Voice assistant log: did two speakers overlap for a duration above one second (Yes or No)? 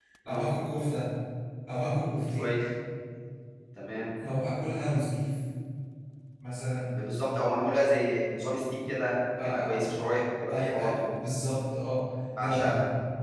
No